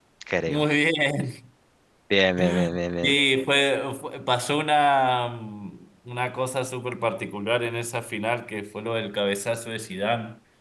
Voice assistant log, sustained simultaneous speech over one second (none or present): none